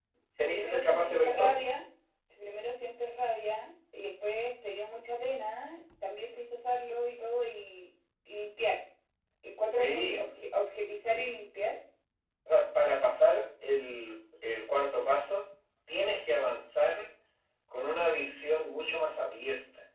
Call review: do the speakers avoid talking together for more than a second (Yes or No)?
No